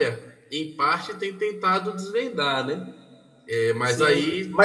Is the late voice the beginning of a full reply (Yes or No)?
Yes